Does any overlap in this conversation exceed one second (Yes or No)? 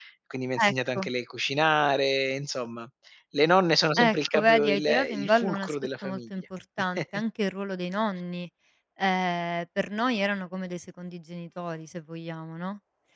Yes